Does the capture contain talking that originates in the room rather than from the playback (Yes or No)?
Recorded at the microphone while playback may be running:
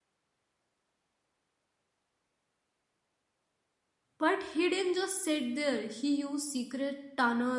Yes